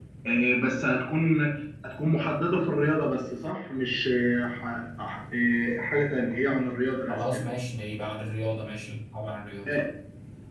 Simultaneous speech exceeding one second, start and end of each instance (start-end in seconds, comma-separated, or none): none